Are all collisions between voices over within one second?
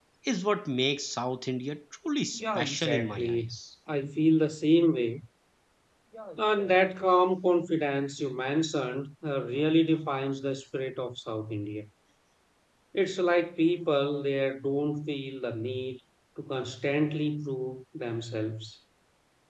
No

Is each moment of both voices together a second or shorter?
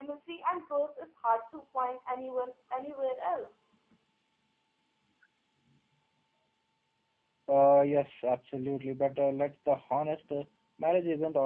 Yes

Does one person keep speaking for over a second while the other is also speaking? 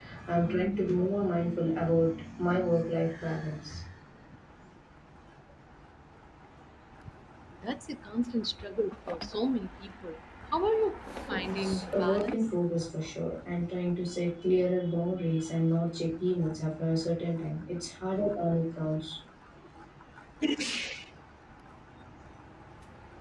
Yes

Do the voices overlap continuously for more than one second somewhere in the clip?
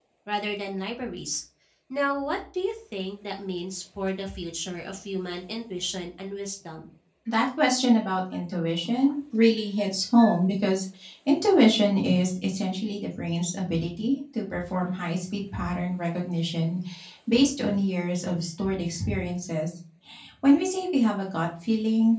No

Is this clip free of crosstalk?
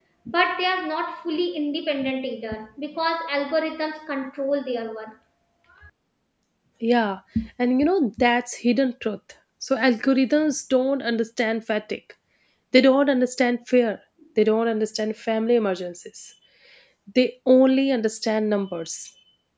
Yes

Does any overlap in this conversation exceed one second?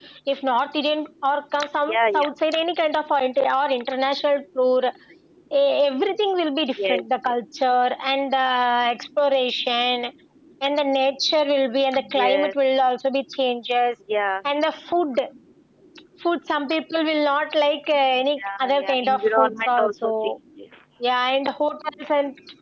Yes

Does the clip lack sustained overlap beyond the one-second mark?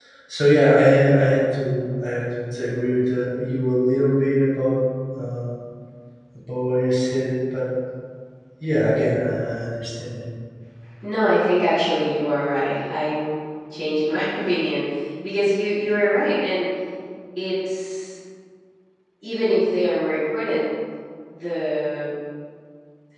Yes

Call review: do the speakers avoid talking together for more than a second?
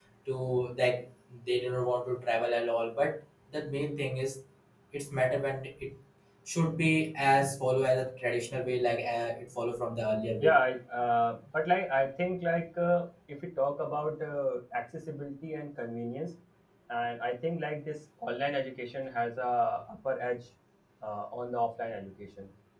Yes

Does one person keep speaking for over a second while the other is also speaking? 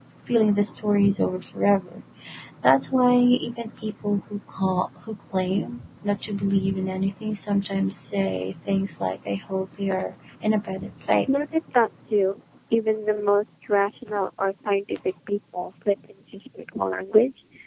No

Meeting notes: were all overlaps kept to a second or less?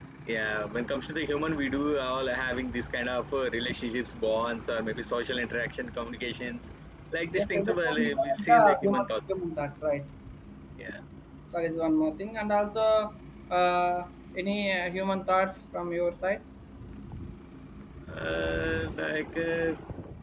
No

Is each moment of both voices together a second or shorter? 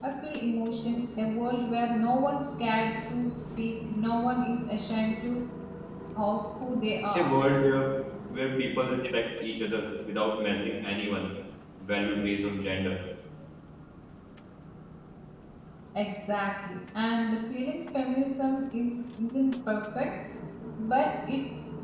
Yes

